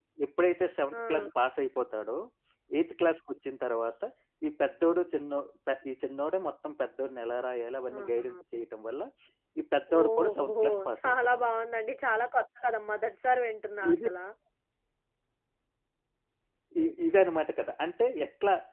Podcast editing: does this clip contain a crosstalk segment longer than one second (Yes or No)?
Yes